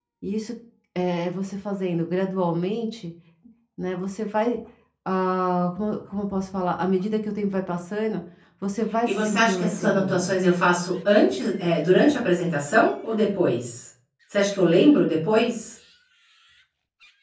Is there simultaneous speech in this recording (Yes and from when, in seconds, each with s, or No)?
Yes, from 9.0 s